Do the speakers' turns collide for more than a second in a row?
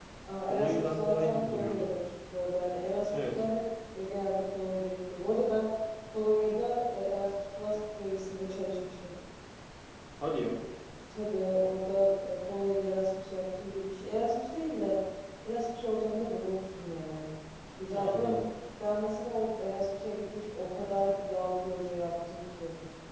Yes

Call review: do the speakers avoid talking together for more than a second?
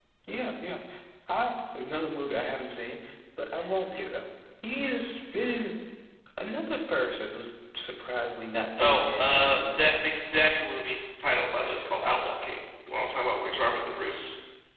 No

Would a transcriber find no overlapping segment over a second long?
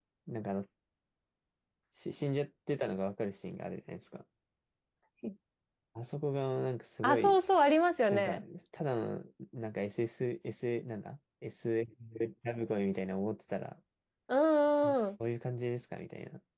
Yes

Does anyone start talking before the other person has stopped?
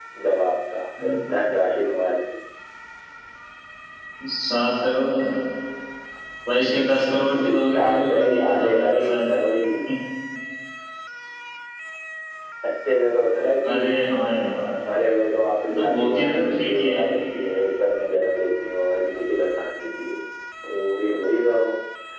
Yes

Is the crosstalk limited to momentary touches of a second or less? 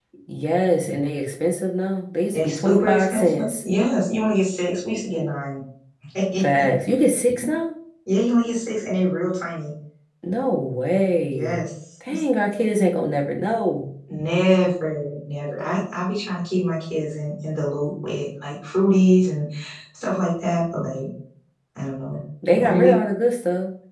No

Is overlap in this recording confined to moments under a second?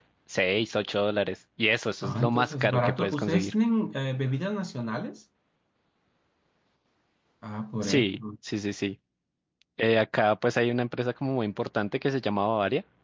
No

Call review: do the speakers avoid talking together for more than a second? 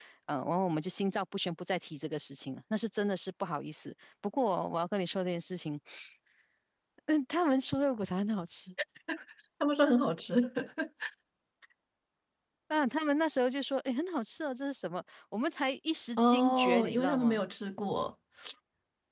No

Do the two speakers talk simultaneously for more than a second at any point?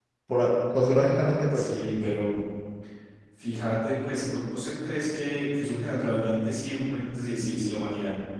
No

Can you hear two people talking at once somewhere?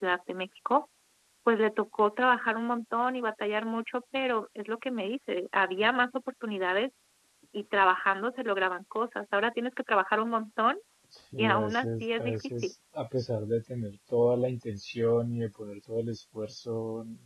Yes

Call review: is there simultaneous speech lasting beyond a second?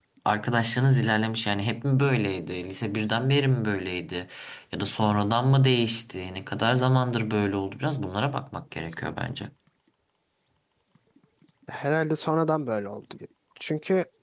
No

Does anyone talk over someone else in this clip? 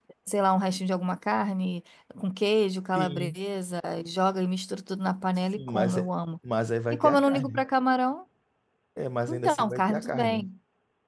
Yes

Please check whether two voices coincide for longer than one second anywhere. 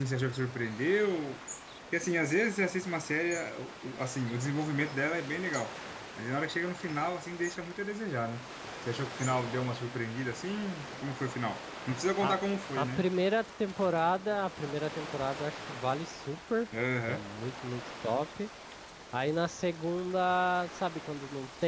No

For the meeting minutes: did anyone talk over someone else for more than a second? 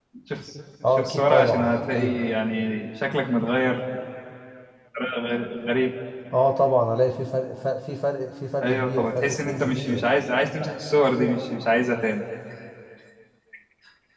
Yes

